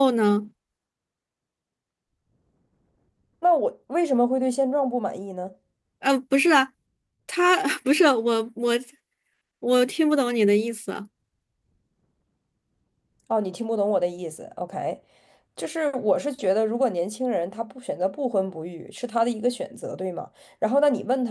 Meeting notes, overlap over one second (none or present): none